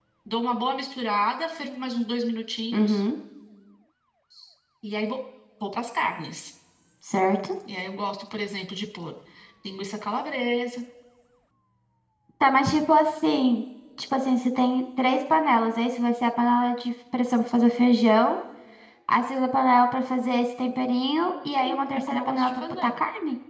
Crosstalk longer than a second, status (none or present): present